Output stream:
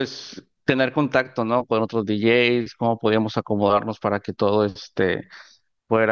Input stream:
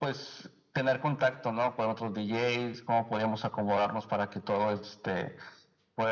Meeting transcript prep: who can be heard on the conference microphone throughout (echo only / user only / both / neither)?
echo only